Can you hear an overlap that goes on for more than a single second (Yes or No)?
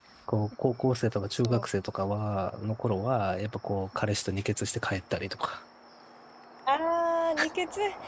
No